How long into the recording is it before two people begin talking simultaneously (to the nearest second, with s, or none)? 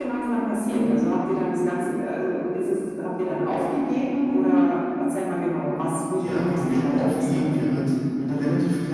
6 s